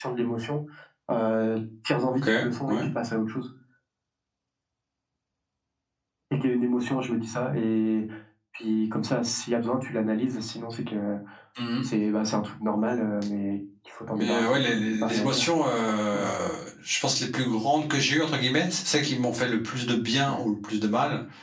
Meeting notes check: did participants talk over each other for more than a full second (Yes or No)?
Yes